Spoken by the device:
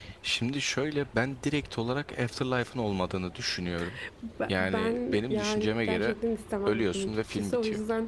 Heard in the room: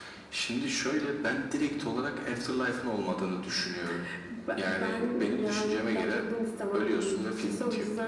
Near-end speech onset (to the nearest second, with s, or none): none